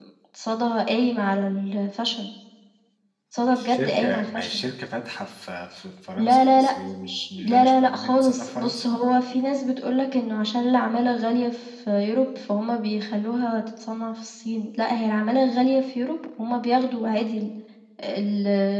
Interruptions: present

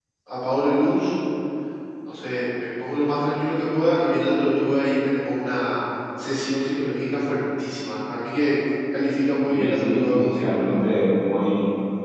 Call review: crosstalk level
present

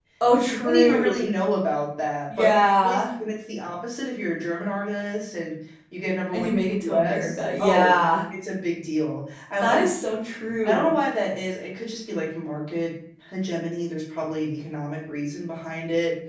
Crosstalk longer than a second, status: present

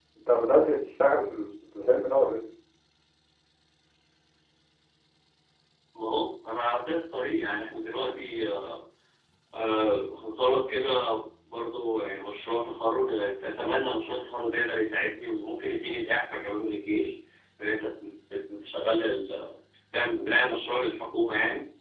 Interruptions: none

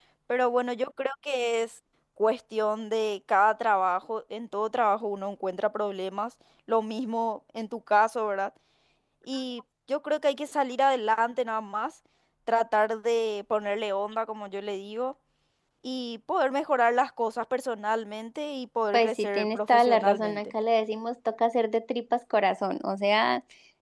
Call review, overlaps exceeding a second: present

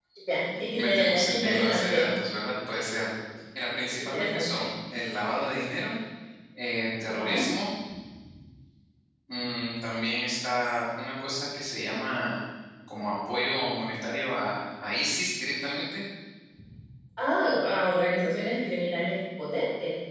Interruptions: present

